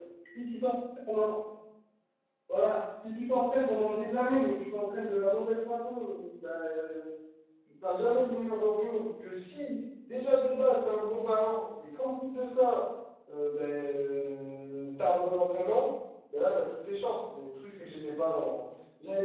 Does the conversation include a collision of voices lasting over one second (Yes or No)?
No